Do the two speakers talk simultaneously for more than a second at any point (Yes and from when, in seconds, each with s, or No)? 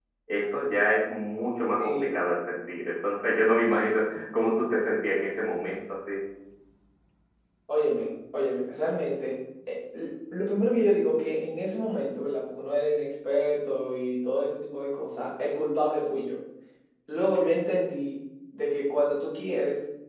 No